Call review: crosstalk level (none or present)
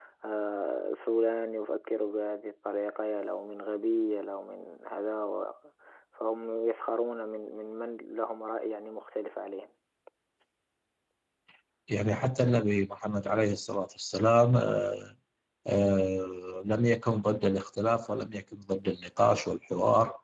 none